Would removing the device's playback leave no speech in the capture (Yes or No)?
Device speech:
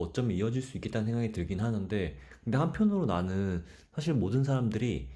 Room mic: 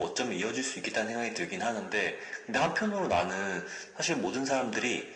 Yes